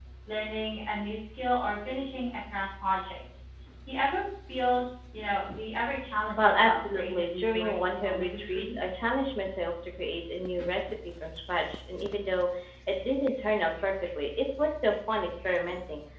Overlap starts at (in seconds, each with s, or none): 6.4 s